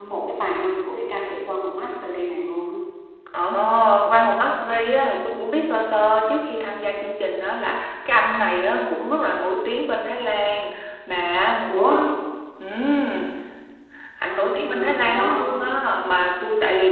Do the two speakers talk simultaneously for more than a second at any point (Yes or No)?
Yes